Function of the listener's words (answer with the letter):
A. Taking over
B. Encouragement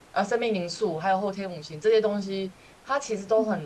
B